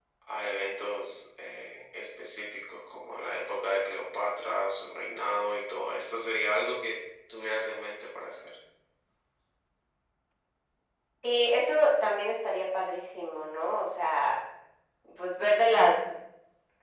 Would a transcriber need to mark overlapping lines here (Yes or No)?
No